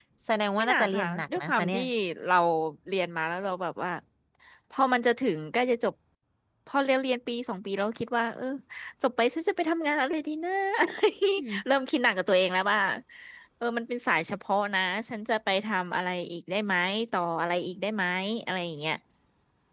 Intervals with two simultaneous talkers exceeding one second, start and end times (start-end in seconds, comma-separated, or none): 0.6-1.8